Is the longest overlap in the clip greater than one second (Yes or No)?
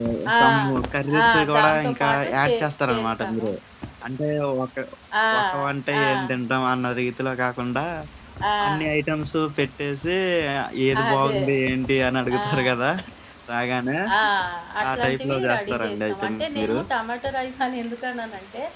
Yes